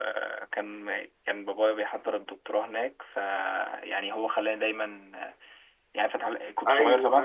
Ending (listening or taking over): taking over